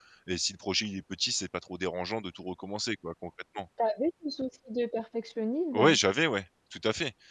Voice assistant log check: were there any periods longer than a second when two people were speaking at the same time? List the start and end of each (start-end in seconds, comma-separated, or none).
none